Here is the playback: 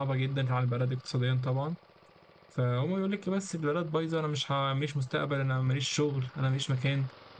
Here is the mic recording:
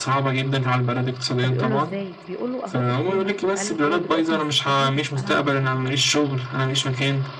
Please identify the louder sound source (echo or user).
echo